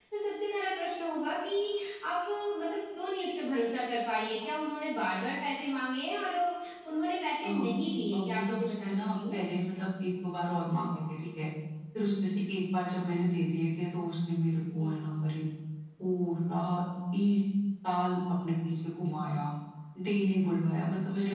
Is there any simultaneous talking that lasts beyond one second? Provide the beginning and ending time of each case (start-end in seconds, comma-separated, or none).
8.1-9.3